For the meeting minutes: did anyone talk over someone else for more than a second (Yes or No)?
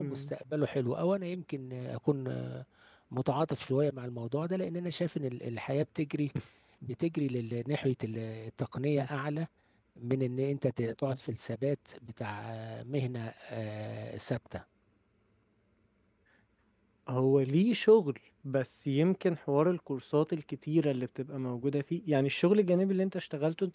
No